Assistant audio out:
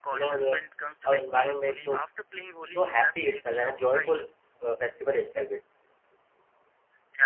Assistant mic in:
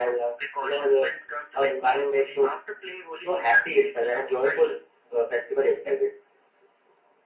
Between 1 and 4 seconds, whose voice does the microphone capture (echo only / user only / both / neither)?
echo only